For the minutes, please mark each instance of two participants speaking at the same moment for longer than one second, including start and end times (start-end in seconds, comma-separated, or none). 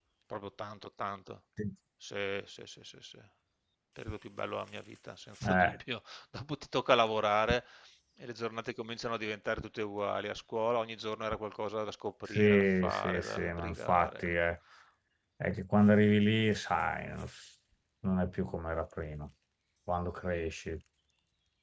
12.3-14.3